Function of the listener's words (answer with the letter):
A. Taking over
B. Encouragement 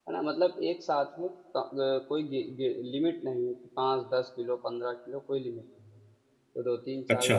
B